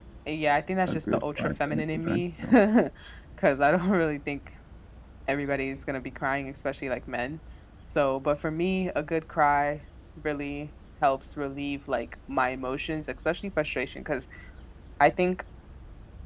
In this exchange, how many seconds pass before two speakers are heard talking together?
0.8 s

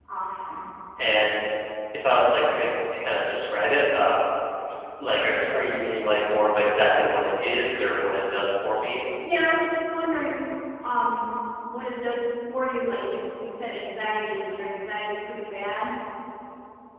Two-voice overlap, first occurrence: none

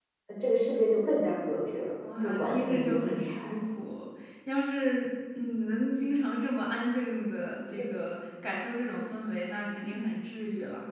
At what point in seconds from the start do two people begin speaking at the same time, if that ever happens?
2.0 s

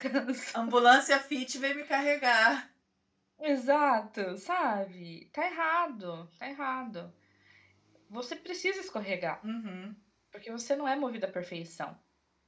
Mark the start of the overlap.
none

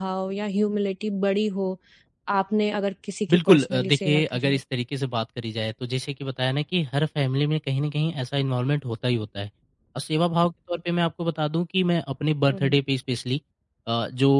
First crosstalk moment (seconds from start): 3.3 s

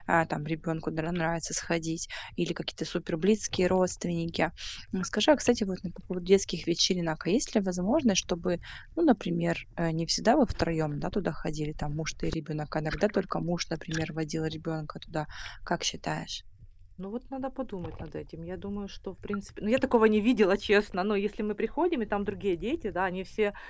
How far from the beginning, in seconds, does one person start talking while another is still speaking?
none

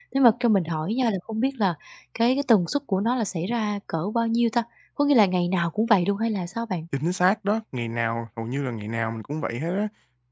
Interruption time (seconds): none

